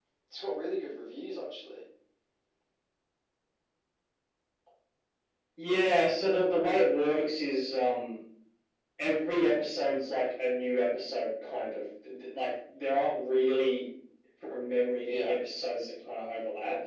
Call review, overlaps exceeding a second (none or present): none